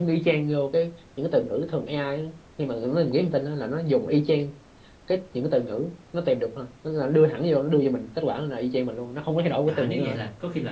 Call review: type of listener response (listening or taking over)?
taking over